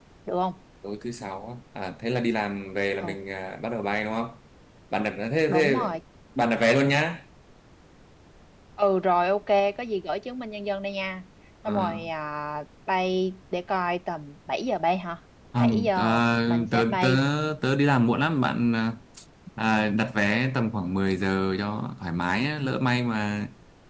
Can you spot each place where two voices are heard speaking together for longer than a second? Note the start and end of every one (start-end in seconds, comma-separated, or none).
15.6-17.1